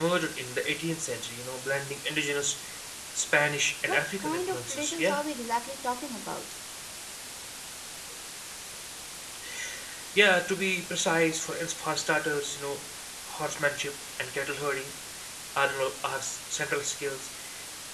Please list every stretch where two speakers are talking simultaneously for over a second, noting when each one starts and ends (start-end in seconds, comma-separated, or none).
3.9-5.2